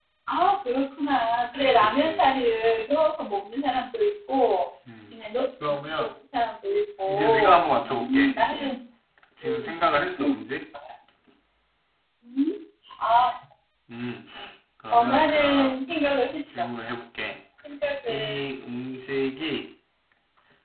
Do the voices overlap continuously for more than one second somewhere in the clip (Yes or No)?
Yes